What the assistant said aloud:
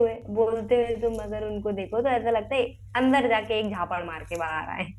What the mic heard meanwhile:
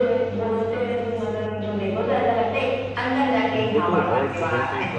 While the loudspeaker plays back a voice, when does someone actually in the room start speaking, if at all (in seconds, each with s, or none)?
3.5 s